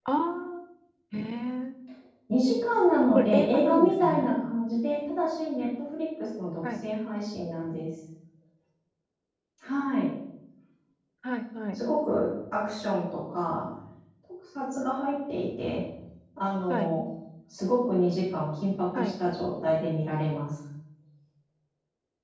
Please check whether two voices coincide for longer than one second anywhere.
Yes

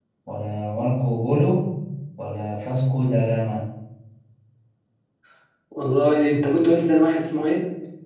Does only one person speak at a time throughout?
Yes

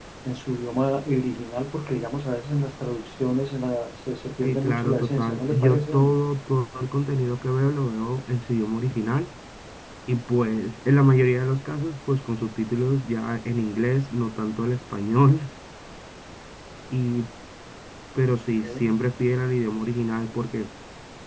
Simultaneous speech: Yes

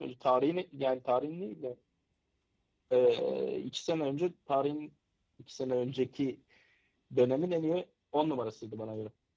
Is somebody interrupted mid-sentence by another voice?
No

